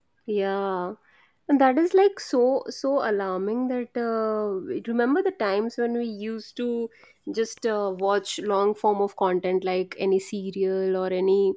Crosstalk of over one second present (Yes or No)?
No